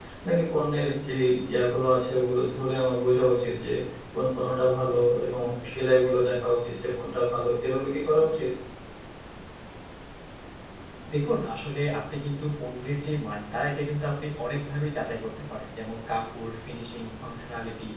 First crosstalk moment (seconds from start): none

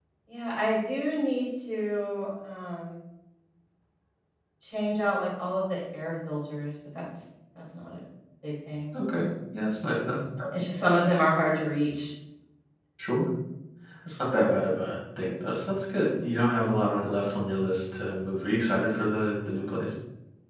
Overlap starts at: none

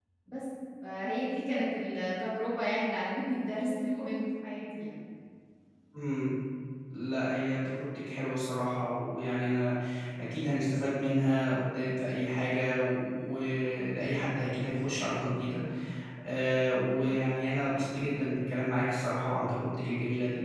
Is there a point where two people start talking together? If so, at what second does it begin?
none

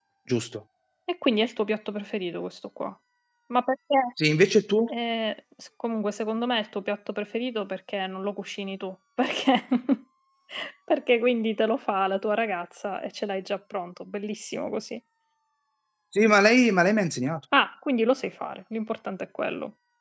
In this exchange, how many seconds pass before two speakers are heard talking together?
none

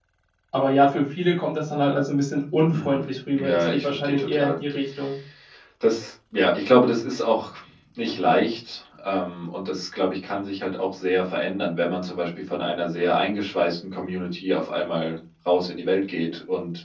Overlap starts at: 2.7 s

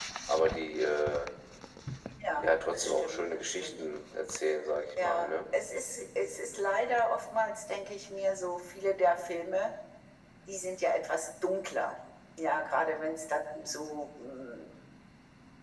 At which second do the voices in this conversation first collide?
2.4 s

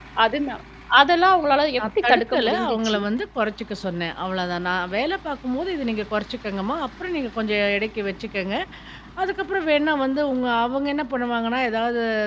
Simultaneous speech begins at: 1.8 s

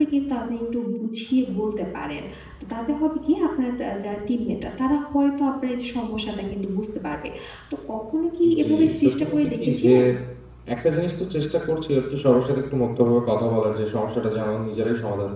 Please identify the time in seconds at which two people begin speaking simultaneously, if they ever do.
8.4 s

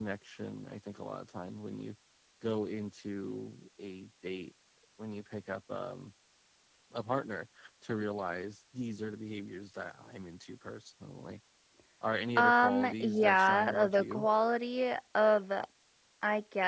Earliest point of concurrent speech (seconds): 12.4 s

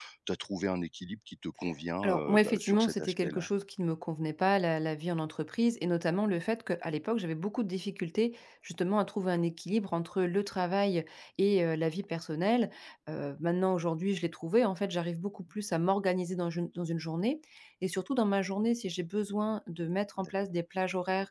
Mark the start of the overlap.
2.0 s

